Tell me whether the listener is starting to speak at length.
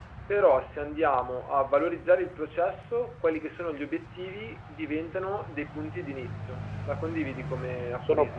Yes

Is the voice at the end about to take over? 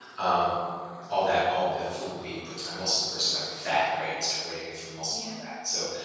No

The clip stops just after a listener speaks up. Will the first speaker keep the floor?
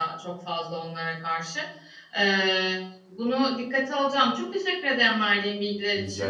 Yes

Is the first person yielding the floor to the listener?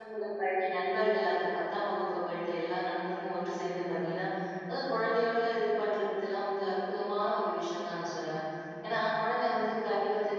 No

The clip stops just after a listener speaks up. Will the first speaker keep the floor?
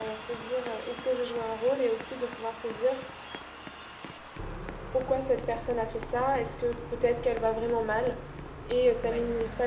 Yes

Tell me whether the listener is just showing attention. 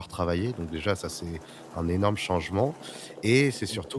Yes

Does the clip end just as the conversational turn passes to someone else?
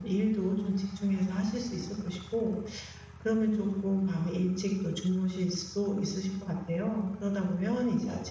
No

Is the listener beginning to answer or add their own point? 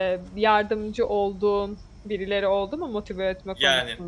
Yes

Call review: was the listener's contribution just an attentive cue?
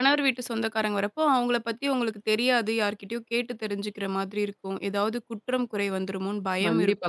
No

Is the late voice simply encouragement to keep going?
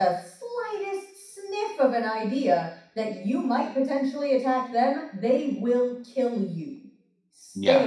No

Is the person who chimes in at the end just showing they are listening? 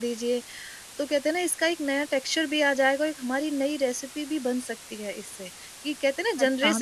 No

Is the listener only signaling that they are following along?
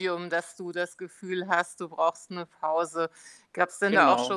Yes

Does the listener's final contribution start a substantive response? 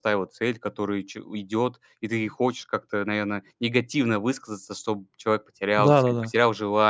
Yes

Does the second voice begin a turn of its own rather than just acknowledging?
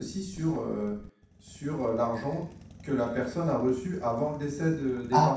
Yes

